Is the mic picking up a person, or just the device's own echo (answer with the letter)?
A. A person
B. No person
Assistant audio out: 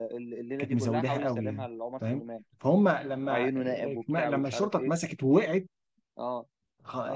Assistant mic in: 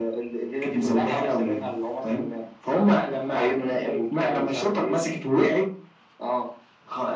B